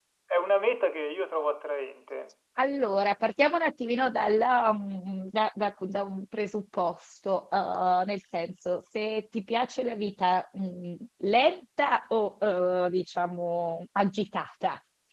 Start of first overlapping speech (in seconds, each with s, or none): none